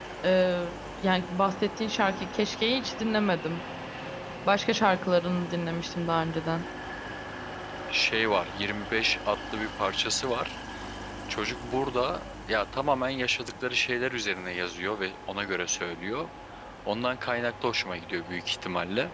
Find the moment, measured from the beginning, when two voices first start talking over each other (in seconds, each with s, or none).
none